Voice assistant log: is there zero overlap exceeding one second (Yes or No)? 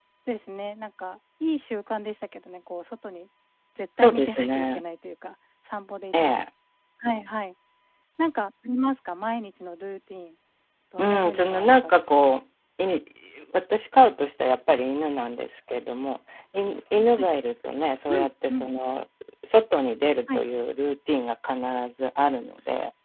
No